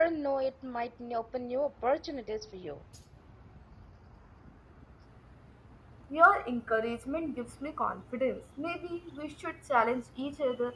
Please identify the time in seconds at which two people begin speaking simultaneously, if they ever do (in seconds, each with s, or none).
none